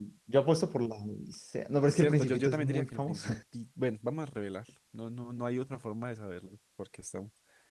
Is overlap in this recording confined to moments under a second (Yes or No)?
No